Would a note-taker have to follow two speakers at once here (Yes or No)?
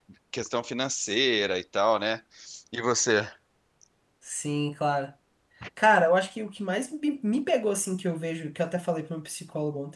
No